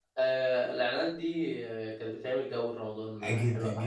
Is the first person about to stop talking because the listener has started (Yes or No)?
Yes